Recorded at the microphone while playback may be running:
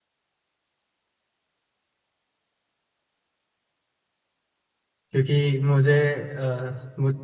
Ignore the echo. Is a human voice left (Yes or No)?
Yes